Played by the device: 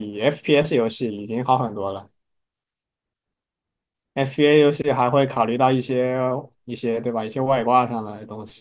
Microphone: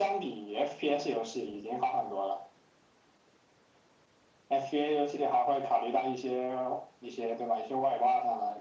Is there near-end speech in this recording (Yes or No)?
No